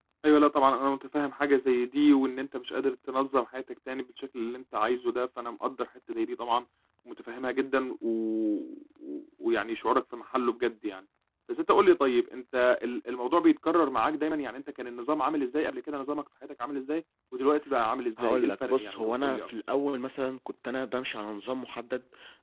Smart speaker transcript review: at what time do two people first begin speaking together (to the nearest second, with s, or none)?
18 s